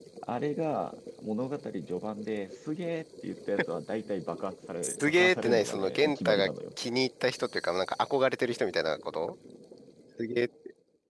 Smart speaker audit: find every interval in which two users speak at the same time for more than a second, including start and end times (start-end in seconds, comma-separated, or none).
4.8-6.5